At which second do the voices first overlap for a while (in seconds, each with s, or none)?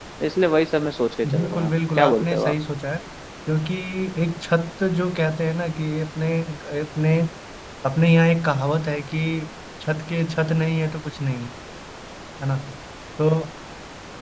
1.2 s